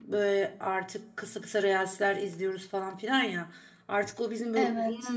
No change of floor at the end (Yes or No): Yes